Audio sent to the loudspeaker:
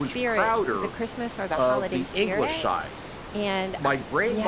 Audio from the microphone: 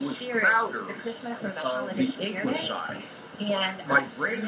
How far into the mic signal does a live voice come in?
none

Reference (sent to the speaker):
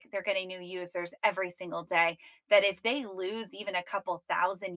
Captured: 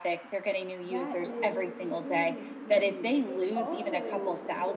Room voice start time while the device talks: 0.8 s

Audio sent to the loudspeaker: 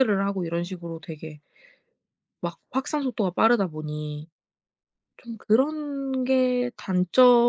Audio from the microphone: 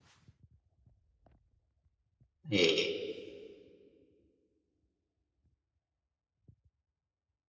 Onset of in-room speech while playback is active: 2.5 s

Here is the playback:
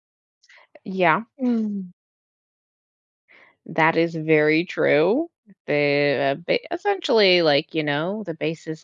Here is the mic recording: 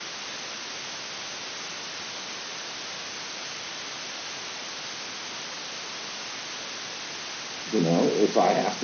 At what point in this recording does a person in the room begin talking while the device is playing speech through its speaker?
7.6 s

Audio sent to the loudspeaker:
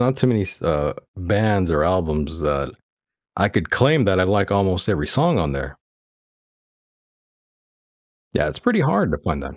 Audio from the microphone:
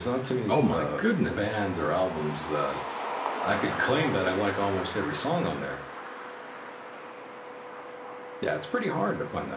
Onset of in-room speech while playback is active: 0.5 s

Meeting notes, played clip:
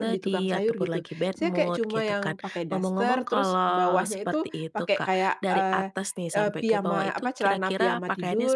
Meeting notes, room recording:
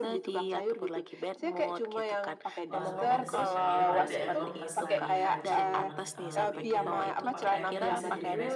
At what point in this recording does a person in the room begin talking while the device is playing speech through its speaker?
2.7 s

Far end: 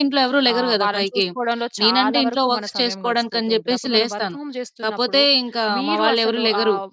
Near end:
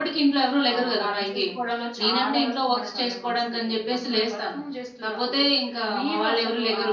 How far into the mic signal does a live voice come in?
none

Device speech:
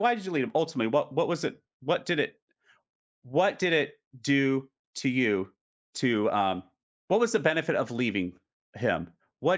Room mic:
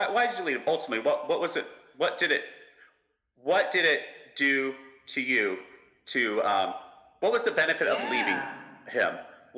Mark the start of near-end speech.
7.8 s

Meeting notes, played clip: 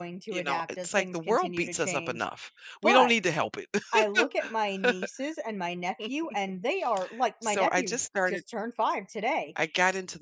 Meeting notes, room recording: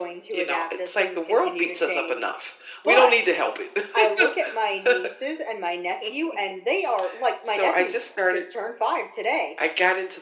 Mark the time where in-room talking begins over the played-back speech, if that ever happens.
none

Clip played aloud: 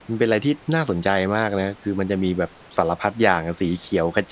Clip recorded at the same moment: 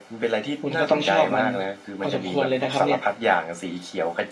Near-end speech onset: 0.6 s

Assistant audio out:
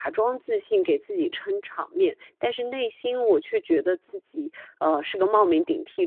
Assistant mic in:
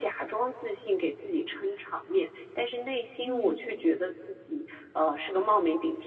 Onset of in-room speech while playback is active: 3.2 s

